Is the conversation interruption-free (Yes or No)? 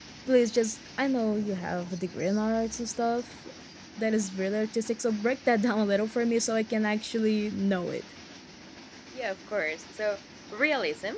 Yes